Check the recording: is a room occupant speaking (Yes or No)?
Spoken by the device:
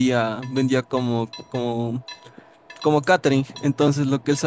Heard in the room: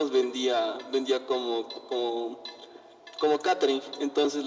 No